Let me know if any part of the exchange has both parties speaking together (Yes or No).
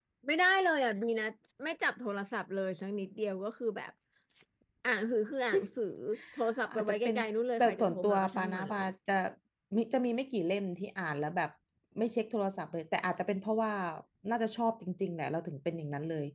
Yes